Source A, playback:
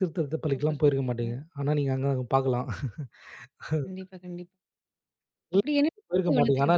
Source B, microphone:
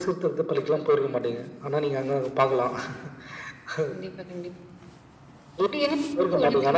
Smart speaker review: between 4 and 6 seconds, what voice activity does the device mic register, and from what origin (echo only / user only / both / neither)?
echo only